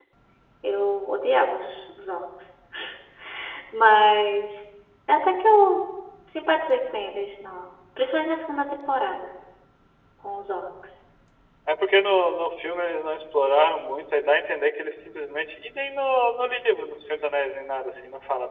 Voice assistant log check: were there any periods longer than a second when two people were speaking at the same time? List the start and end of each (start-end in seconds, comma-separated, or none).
none